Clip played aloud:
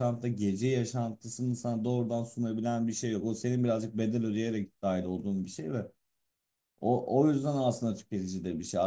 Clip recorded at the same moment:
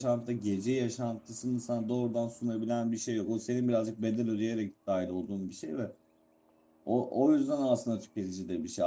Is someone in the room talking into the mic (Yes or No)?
No